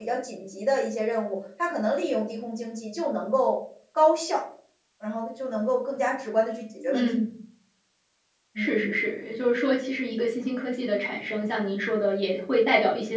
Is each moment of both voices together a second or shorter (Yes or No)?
Yes